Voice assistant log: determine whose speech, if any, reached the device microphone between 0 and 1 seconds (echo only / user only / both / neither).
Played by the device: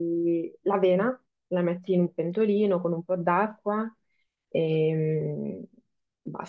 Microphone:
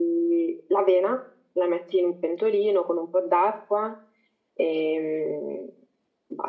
echo only